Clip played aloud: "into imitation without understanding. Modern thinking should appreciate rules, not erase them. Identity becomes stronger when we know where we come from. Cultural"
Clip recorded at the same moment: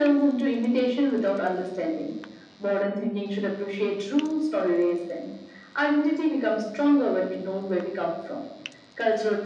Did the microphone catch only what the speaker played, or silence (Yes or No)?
Yes